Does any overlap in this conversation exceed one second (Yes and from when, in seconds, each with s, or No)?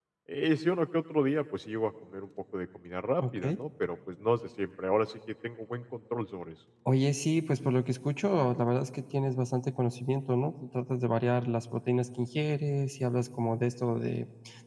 No